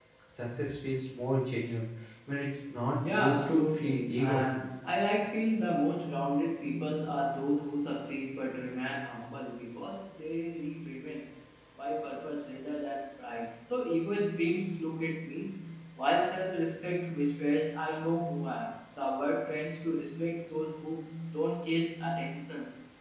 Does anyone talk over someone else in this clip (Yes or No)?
Yes